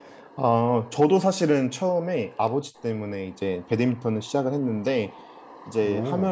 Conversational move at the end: listening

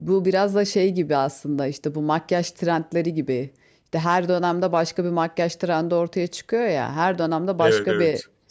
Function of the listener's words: listening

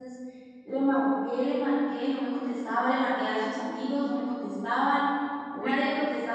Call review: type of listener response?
listening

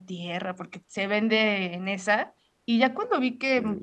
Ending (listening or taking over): listening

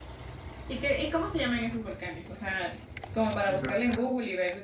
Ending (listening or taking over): listening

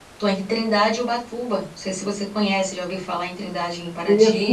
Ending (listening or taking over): taking over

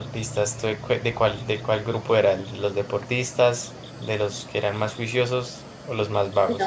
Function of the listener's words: taking over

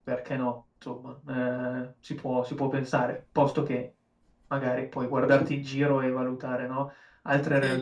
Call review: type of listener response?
taking over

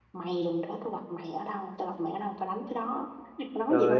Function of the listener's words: taking over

